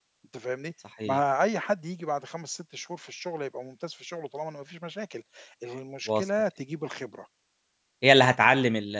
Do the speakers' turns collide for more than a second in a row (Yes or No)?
No